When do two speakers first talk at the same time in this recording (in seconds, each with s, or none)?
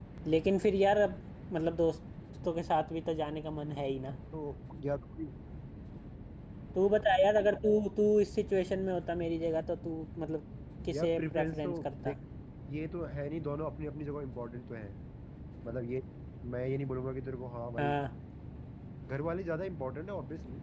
10.9 s